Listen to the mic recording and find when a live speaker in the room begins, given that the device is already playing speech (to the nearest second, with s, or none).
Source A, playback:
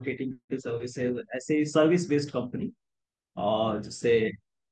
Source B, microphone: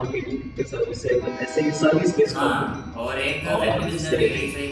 2 s